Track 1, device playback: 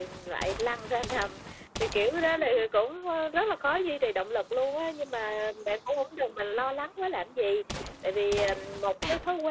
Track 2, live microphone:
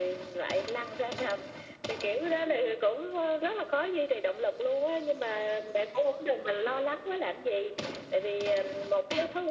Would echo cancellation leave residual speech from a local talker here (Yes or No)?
No